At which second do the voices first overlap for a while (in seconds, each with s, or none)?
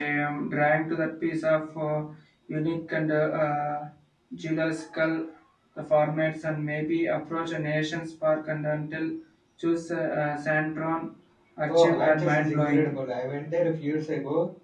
11.7 s